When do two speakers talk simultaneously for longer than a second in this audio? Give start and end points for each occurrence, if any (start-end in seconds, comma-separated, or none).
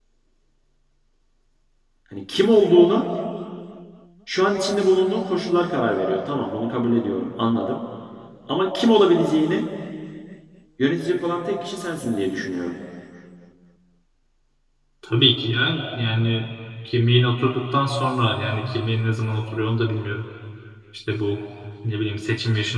none